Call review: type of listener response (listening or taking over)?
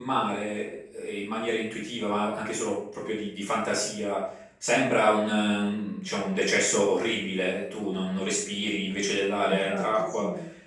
listening